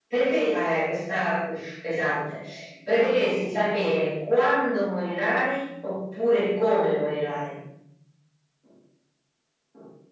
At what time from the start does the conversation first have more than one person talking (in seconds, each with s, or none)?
none